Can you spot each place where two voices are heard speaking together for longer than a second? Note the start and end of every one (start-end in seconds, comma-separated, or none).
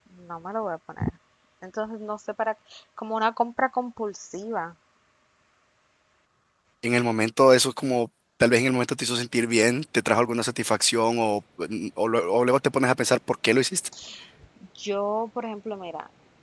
none